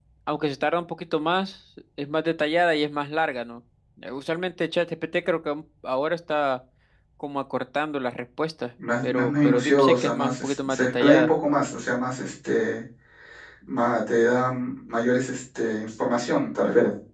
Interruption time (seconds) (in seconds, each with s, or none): 9.0 s